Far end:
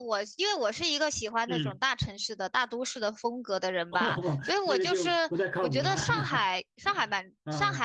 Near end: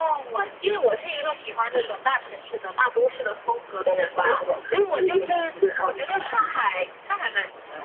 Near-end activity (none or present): none